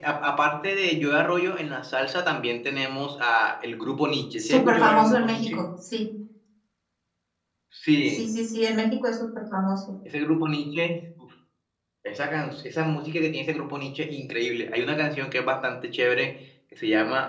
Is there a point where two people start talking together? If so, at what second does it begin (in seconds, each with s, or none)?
4.4 s